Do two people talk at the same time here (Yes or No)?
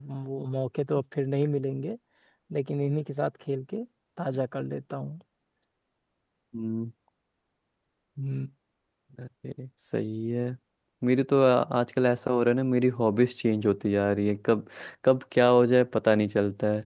No